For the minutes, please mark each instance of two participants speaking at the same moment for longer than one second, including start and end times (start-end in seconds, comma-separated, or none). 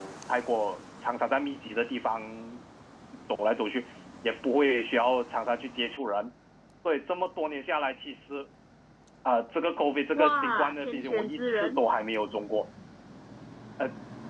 10.2-11.8